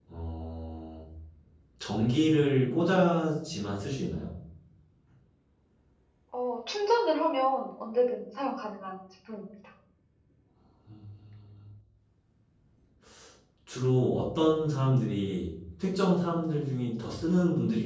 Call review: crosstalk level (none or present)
none